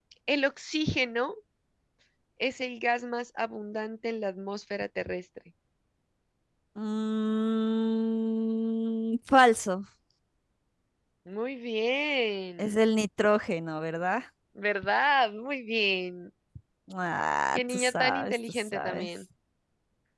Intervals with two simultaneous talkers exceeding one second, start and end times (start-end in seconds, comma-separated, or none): 17.6-19.1